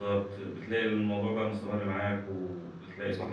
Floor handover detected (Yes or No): No